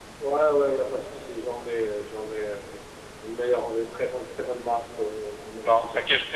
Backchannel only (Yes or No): No